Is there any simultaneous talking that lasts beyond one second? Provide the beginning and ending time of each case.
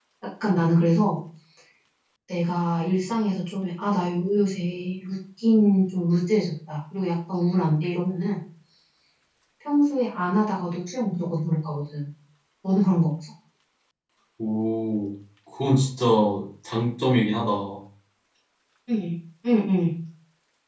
none

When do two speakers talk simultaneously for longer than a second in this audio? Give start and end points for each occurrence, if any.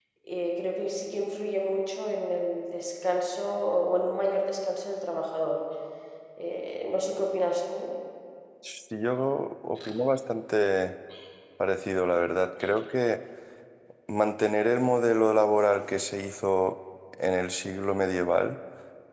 none

